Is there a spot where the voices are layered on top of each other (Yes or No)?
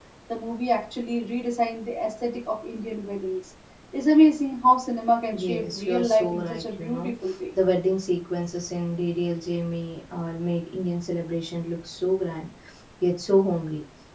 Yes